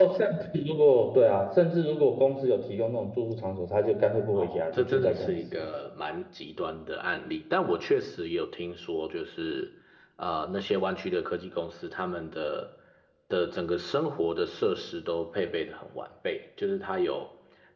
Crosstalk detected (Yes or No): Yes